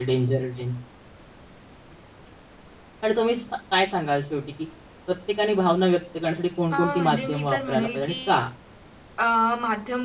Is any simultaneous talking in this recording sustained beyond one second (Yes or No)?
Yes